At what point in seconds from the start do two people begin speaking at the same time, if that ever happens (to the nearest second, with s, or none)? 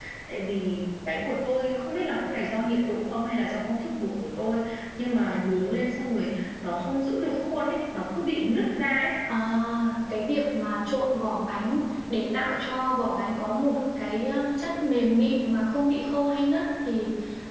none